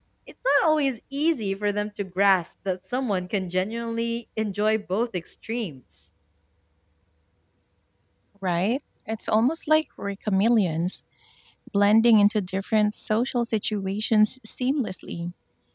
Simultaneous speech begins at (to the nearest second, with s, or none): none